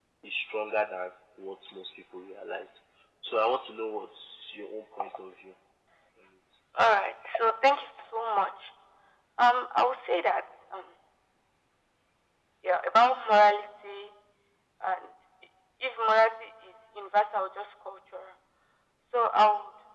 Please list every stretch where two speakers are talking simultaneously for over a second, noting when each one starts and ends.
none

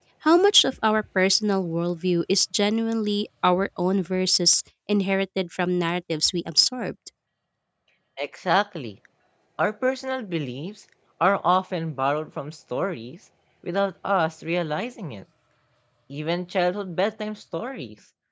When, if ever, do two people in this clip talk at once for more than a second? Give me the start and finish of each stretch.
none

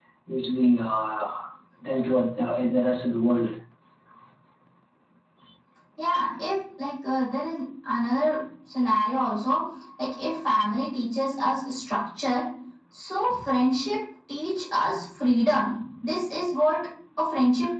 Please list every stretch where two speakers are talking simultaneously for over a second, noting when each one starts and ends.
none

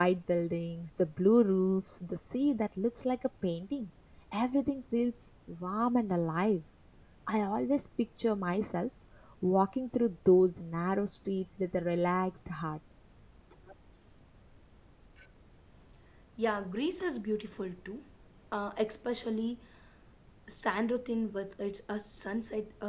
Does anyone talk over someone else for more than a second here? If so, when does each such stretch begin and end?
none

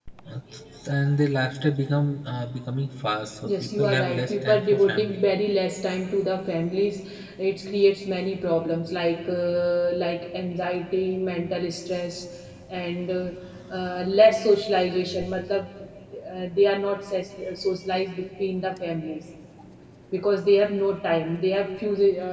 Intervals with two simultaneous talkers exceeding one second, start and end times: 3.5-5.2

